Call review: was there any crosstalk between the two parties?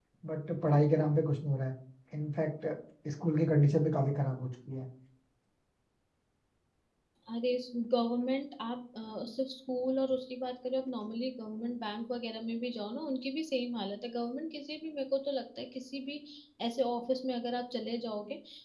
No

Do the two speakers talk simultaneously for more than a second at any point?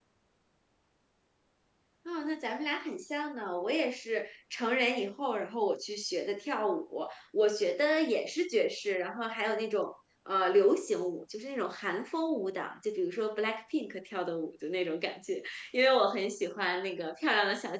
No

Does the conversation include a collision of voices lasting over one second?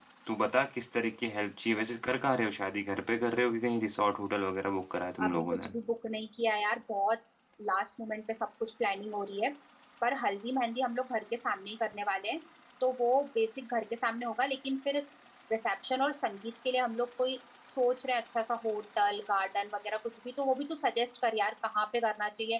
No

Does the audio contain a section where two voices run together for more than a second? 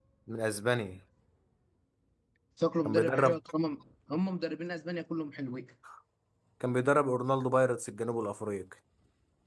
No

